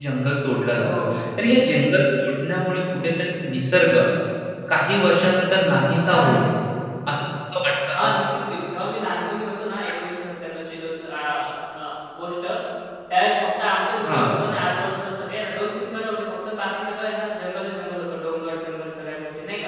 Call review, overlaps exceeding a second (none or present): none